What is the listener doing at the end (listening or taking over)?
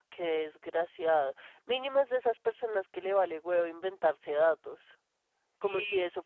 listening